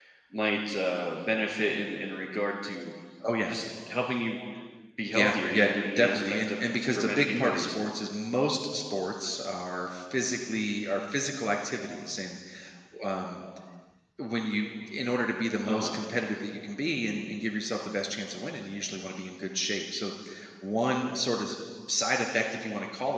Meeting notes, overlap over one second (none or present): present